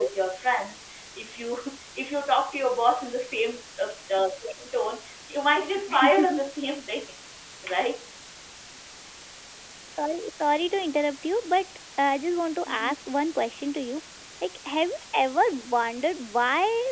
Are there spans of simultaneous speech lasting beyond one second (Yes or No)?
No